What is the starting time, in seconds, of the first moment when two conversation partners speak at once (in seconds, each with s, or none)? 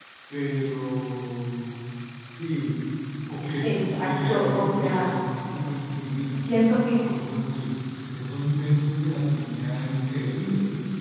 3.6 s